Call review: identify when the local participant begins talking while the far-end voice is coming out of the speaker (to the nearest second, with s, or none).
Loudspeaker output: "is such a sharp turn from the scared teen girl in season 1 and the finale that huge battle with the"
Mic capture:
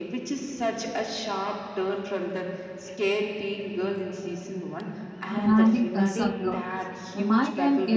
5 s